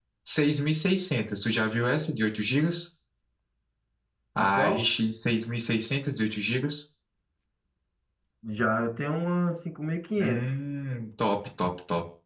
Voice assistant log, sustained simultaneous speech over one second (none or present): none